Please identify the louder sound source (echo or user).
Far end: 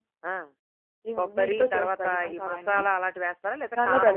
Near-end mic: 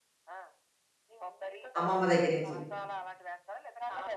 user